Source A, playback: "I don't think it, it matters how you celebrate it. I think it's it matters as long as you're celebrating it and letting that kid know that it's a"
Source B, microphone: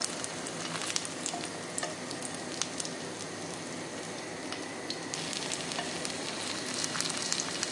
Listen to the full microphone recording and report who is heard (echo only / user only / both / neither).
neither